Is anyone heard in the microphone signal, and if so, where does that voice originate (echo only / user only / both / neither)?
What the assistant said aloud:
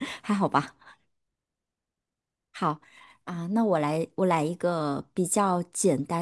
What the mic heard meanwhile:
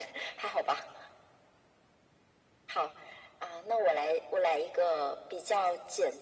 echo only